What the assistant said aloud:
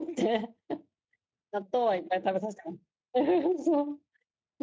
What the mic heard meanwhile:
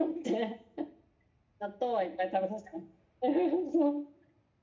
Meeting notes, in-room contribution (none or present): none